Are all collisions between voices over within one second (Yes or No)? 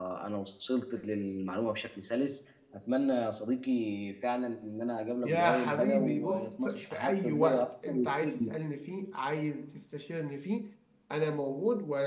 No